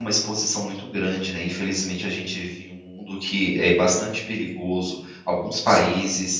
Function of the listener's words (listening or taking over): listening